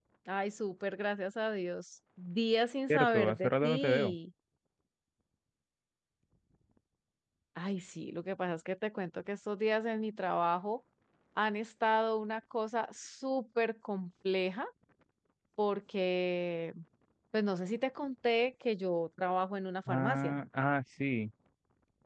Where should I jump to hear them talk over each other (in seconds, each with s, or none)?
2.9 s